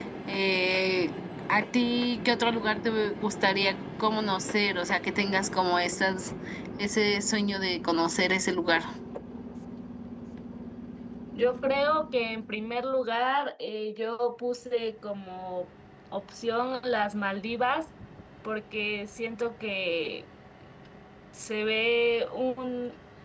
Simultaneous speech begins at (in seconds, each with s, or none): none